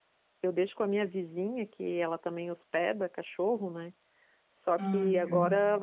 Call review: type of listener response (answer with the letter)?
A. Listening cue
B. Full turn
A